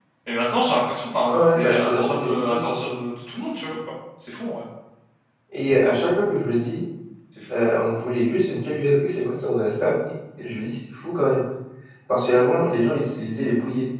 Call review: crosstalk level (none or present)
present